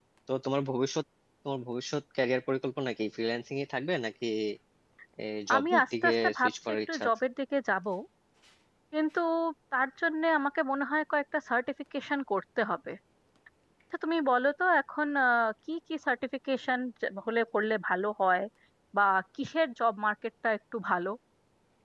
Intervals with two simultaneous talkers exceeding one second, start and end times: 5.5-7.1

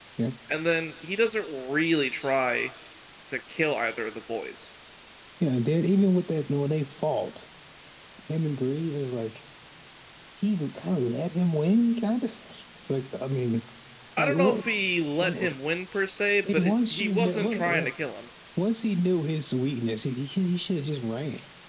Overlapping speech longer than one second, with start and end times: 16.5-17.8

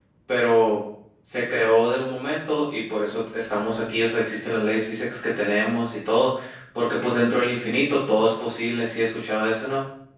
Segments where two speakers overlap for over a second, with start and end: none

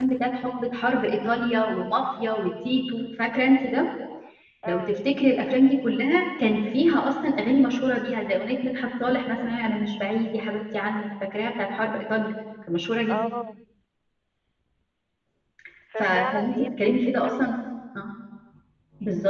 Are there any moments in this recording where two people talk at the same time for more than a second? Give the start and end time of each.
16.0-17.5

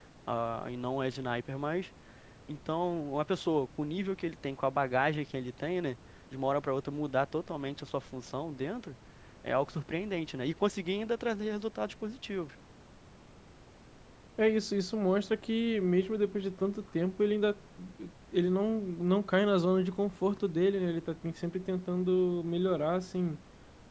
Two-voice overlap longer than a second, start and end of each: none

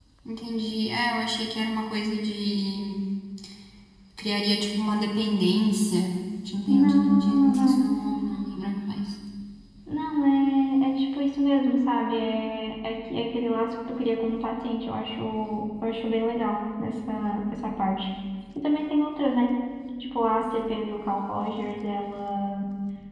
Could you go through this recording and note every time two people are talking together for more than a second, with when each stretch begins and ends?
6.7-7.9

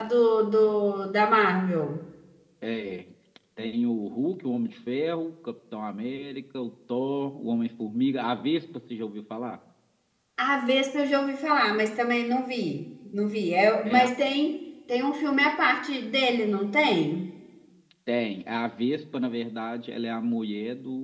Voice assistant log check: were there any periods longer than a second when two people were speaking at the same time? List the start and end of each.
none

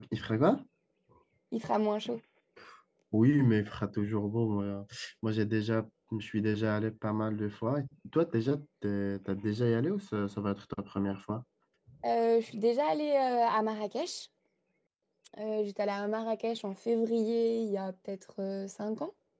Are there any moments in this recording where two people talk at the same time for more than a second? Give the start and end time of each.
none

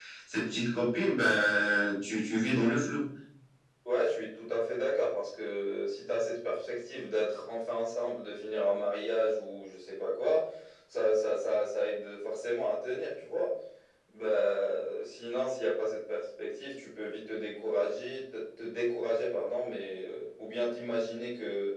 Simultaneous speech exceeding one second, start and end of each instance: none

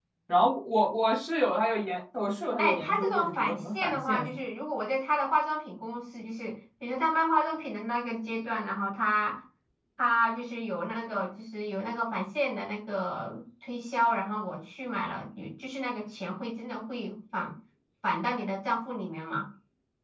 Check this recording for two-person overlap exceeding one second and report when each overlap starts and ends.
2.6-4.4

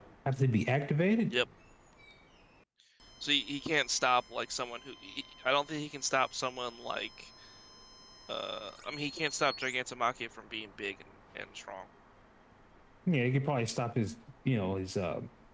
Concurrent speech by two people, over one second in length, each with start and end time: none

